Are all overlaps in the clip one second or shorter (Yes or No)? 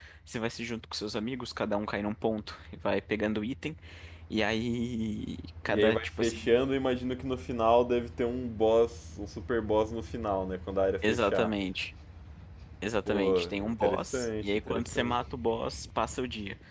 No